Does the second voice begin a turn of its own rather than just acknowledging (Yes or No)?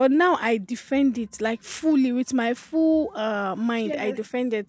No